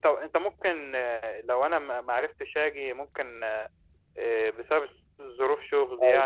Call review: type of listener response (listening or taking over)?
listening